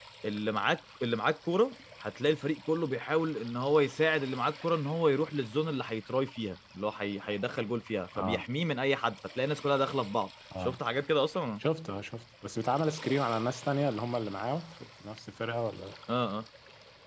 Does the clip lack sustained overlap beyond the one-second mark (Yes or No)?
Yes